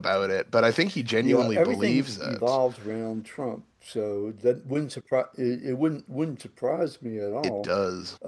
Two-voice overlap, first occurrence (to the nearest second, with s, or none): 1 s